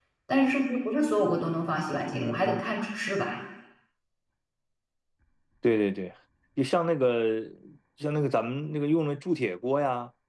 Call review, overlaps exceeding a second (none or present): none